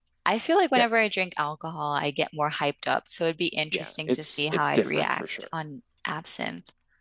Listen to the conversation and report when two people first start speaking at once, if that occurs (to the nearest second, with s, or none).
4 s